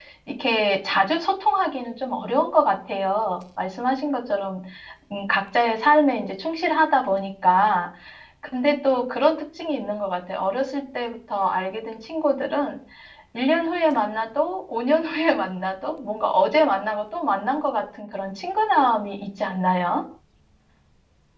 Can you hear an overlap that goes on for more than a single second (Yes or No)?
No